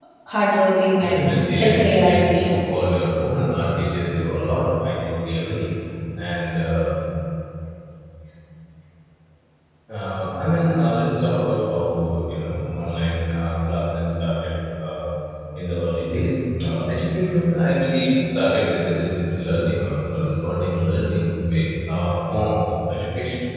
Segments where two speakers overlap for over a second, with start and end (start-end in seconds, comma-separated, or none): 1.0-2.8